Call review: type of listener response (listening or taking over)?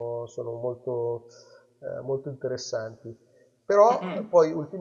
listening